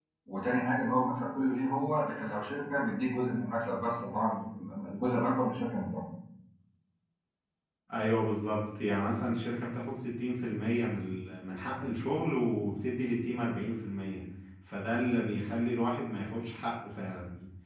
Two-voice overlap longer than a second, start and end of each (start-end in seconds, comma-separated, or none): none